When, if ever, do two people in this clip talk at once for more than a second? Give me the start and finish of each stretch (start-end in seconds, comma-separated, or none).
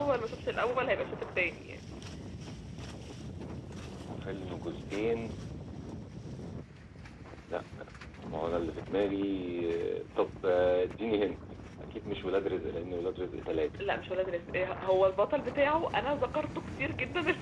none